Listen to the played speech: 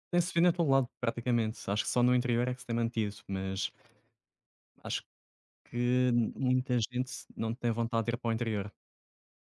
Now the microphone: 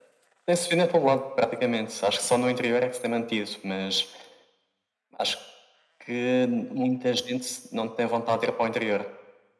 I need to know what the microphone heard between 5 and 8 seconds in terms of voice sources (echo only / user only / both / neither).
echo only